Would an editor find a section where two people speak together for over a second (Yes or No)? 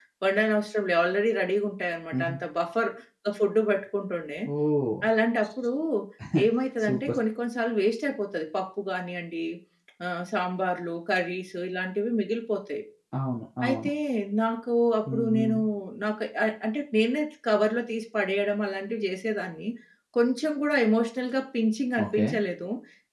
No